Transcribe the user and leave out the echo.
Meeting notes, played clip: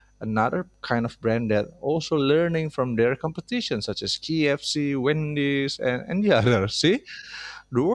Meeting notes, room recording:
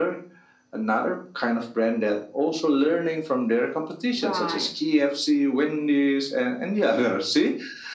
Right.

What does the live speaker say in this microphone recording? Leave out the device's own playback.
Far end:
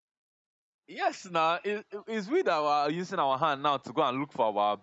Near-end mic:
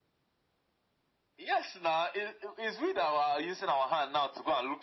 none

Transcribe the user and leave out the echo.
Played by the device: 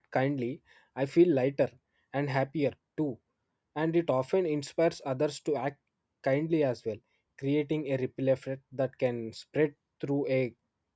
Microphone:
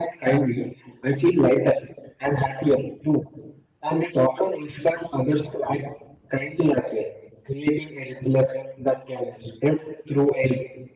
none

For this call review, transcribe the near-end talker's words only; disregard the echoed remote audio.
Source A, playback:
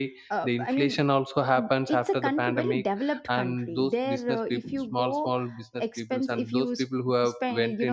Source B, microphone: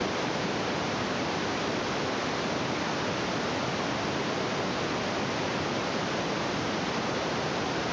none

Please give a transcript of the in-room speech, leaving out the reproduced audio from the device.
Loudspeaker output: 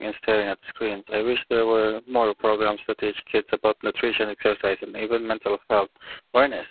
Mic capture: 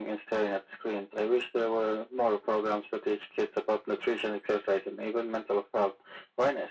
none

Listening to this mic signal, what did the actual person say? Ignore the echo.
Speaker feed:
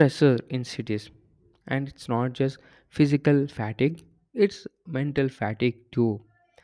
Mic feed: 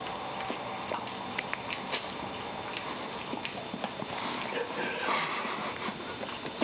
none

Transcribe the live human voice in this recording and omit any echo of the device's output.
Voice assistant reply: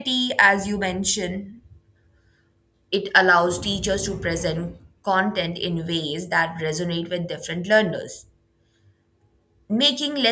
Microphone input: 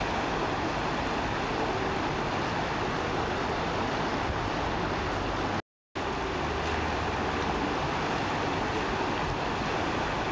none

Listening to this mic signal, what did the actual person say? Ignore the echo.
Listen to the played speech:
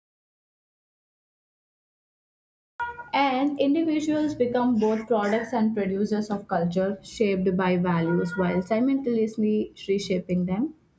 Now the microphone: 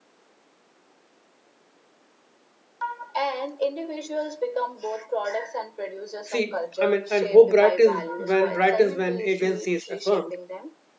See, I mean, and how bright is when bright is when agency is affirmed.

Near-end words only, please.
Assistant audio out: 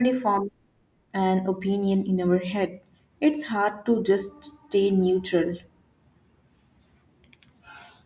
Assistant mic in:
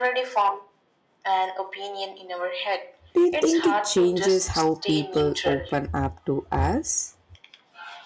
Do you think it changes how people open up to us?

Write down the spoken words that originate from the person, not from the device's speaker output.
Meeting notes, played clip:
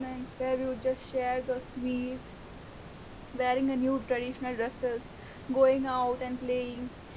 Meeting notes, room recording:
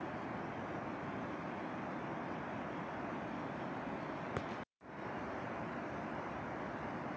none

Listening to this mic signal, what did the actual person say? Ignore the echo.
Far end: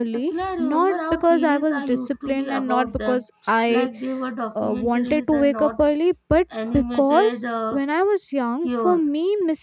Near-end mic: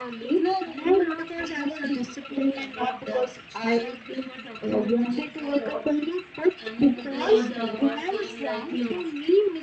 if they were neighbors, saying like

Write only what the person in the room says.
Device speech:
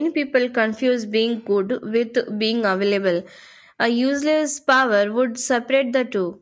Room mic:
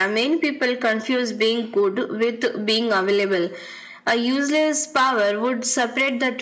none

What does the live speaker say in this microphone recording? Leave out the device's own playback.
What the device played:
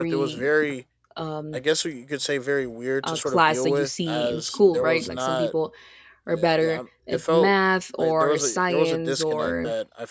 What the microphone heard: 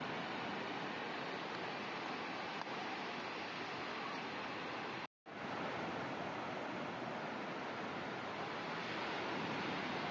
none

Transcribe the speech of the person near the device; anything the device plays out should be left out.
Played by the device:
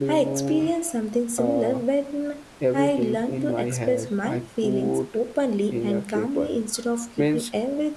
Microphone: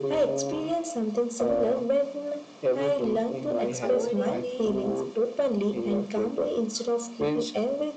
avoiding the

